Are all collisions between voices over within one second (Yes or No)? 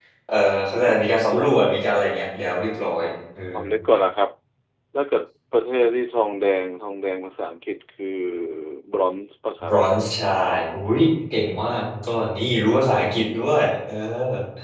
Yes